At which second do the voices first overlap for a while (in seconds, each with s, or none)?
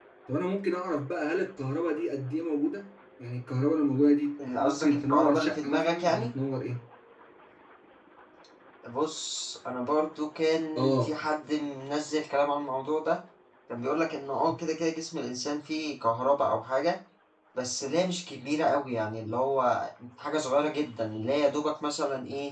4.6 s